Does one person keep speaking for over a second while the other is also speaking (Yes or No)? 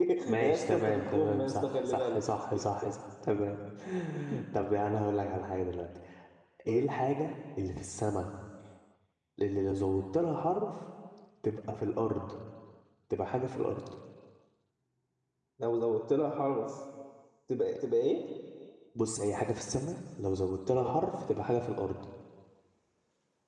Yes